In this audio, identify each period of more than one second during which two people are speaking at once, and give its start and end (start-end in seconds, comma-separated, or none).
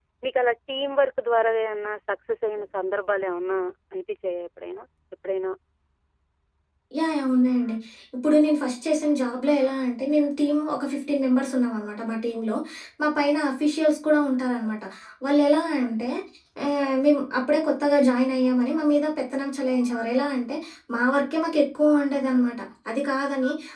none